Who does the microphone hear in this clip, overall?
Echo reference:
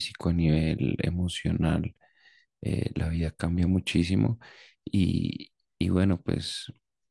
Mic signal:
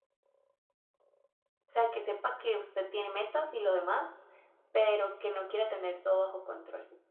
user only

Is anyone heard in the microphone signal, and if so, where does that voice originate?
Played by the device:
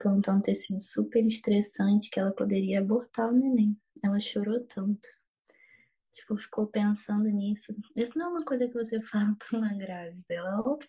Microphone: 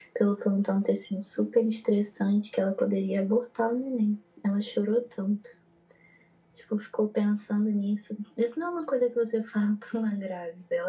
echo only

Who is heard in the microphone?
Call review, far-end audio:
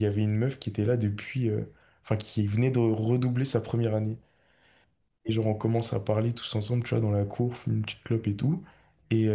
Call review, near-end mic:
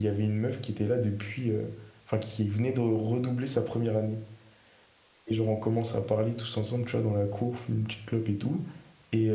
echo only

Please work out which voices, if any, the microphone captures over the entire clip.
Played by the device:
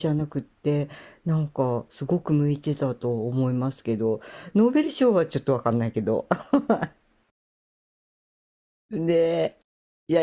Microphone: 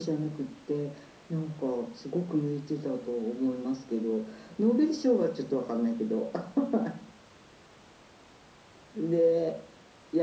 echo only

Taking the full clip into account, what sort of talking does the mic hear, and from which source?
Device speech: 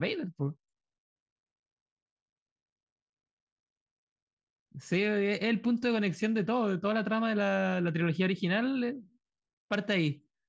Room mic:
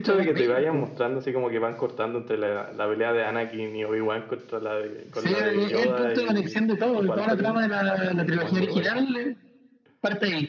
both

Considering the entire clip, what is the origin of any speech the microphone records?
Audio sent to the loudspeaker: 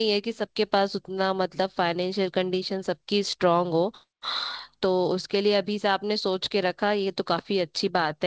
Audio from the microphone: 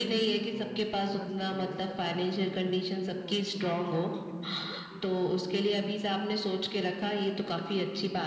both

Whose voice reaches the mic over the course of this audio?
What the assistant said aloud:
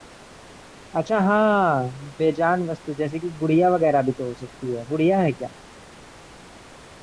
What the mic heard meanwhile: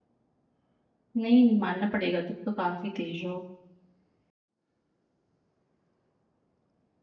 user only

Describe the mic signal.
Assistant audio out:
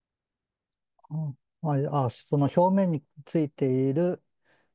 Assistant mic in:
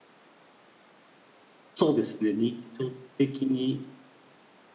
user only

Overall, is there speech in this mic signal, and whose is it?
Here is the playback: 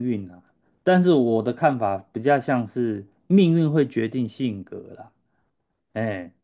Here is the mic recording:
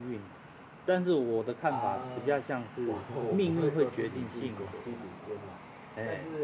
both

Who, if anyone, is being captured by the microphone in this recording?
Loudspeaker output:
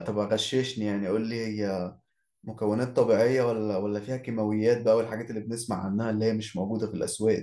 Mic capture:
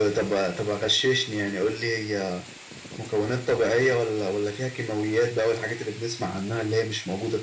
echo only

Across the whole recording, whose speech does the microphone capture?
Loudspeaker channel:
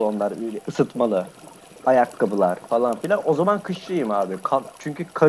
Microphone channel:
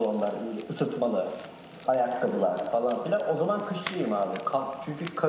echo only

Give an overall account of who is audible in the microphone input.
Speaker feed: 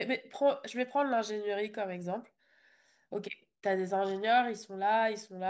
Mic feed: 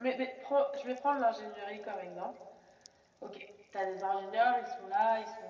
echo only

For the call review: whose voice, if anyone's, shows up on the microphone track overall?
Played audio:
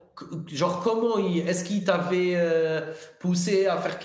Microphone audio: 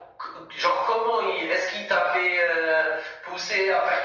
echo only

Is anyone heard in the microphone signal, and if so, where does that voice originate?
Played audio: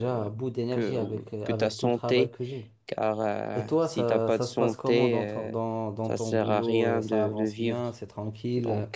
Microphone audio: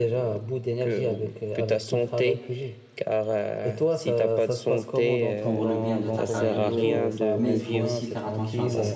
both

